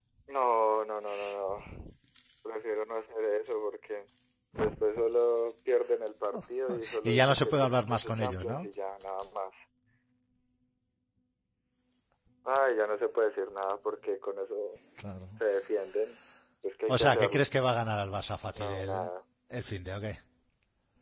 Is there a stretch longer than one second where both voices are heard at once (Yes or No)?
Yes